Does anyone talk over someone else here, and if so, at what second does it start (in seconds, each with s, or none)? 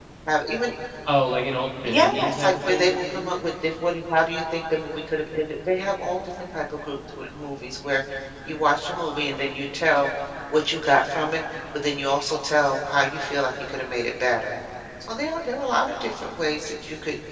1.8 s